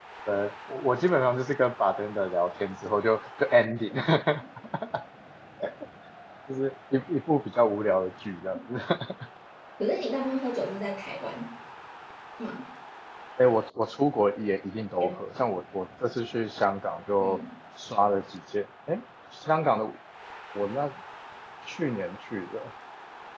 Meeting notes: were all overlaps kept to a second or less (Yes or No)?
Yes